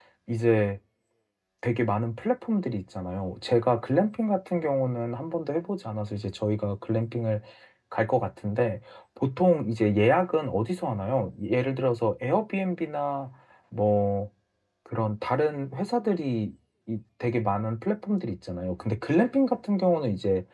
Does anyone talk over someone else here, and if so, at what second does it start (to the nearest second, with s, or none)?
none